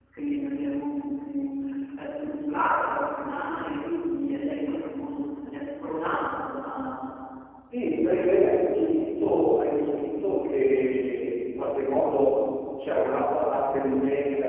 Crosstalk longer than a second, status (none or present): none